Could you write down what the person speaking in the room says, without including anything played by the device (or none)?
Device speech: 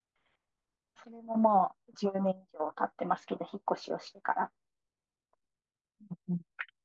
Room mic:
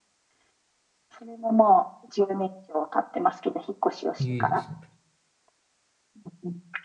ー、いいですね。